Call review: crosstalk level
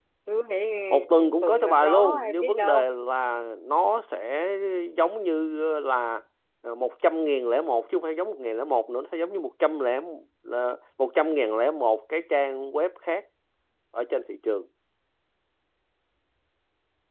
present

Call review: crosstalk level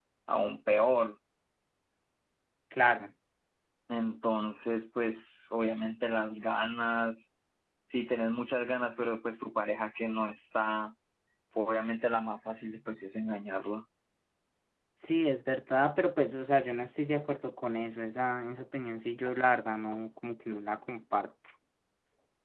none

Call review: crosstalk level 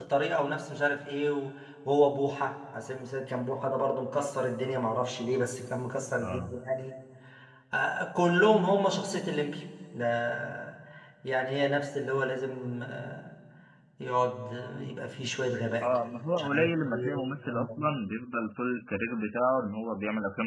present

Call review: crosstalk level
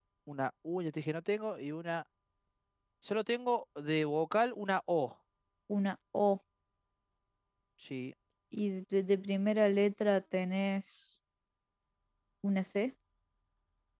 none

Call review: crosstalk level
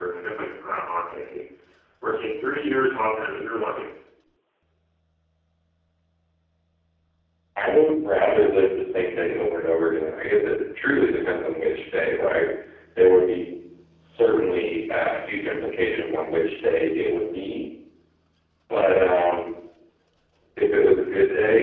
none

